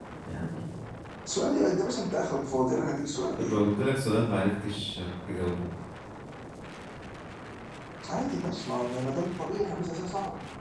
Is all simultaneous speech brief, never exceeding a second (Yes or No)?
Yes